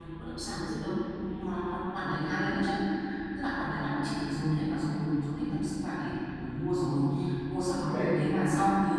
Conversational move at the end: listening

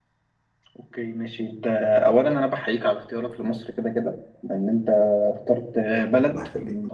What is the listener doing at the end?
listening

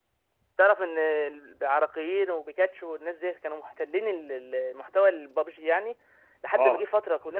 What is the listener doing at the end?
listening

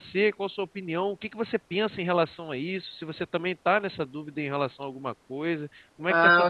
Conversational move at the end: taking over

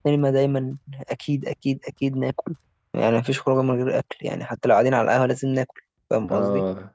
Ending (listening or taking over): taking over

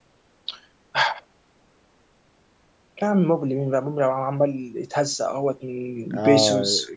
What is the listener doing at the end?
taking over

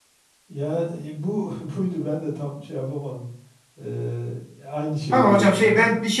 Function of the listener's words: taking over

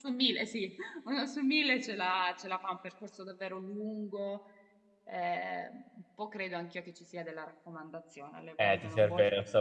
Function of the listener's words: taking over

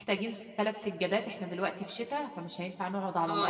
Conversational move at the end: taking over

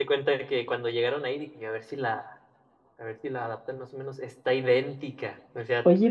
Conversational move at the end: taking over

